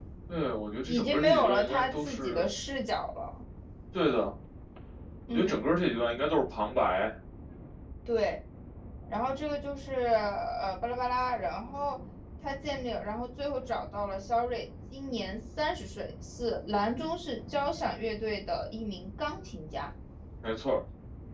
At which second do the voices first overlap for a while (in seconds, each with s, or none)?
0.9 s